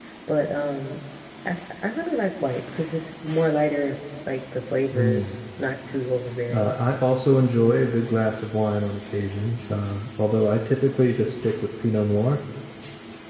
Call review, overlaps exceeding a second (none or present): none